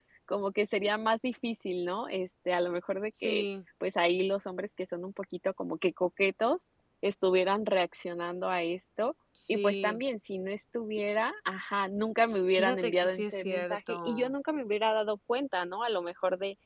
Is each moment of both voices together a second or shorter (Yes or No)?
No